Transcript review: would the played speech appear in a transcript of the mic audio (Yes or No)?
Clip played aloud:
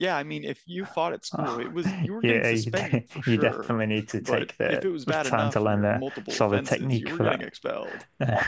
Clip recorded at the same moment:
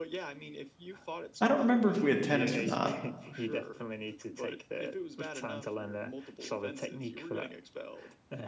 Yes